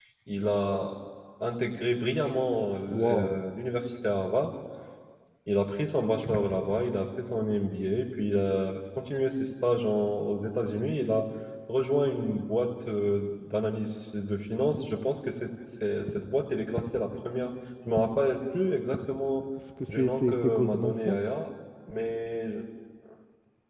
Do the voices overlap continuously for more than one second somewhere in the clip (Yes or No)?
Yes